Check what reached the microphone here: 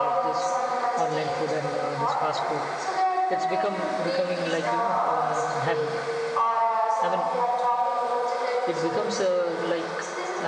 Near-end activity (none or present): present